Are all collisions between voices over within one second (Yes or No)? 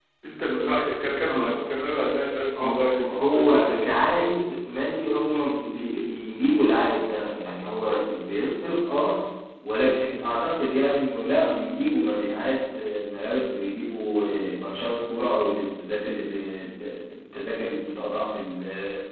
No